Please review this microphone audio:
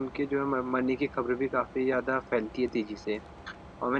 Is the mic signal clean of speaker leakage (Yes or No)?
Yes